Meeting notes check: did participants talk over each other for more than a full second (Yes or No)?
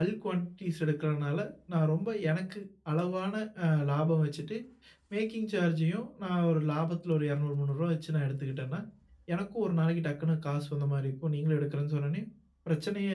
No